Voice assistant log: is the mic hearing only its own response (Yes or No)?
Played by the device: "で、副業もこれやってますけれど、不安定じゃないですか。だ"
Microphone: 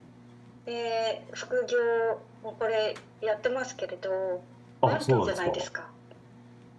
No